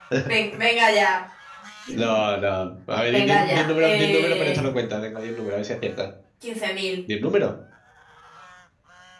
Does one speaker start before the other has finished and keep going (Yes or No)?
Yes